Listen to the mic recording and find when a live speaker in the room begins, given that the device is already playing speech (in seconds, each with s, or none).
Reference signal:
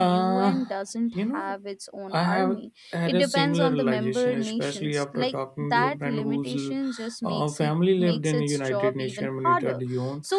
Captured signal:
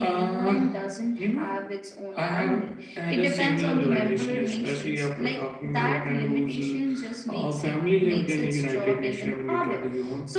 none